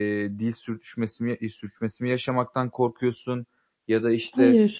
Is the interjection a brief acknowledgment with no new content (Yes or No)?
Yes